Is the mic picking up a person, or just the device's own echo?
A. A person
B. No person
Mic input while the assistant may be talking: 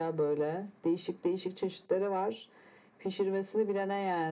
B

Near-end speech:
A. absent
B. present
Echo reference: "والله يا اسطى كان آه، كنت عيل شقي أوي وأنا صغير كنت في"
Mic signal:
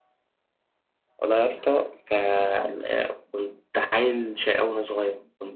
A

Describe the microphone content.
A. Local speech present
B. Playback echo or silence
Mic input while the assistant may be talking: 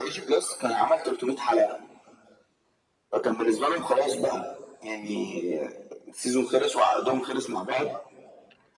B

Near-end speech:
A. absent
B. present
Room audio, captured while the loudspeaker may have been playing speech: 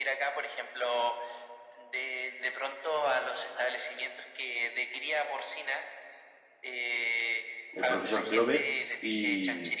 B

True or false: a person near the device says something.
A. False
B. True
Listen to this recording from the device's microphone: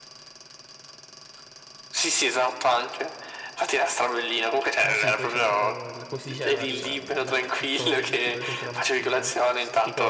B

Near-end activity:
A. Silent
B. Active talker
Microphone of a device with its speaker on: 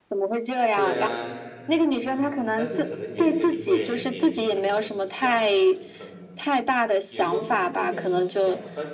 B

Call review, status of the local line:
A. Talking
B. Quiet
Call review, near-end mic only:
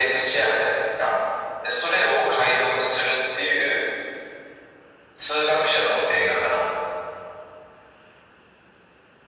B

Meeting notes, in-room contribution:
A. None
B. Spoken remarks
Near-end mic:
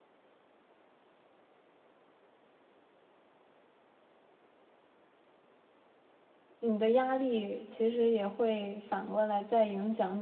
B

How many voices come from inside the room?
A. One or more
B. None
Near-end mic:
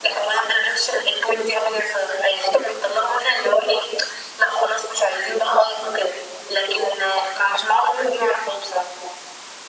B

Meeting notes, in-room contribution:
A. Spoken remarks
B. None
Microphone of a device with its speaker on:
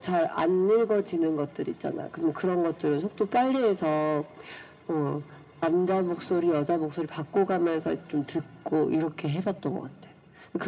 B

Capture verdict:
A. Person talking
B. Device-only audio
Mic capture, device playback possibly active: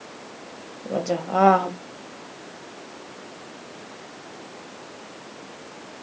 A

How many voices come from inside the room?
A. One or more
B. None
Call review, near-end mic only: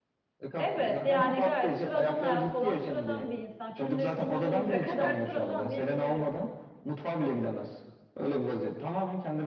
A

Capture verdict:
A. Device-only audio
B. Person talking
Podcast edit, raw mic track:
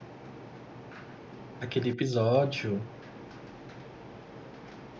B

